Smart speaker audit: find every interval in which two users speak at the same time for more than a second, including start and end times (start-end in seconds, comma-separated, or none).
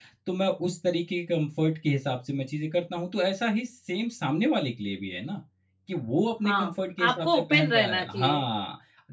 7.1-8.4